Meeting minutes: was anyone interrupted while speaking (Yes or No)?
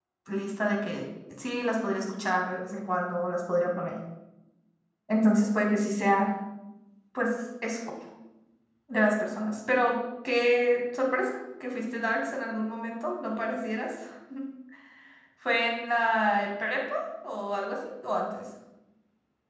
No